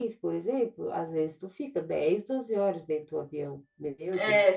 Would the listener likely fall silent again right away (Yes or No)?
No